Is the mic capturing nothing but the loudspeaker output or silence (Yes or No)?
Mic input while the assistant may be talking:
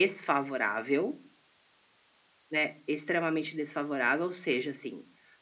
Yes